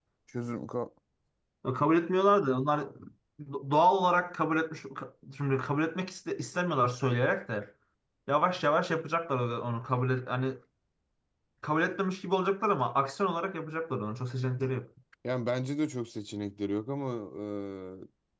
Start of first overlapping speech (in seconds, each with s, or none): none